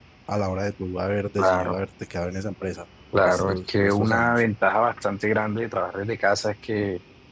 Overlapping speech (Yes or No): Yes